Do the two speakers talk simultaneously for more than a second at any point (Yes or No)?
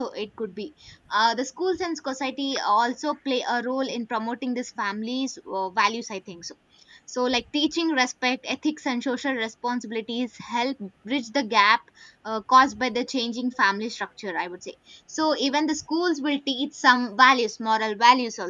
No